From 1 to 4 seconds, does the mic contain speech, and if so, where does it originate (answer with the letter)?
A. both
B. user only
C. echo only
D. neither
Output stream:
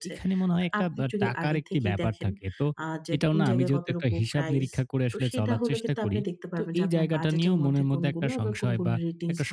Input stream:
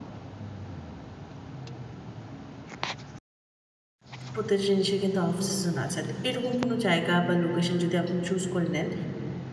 D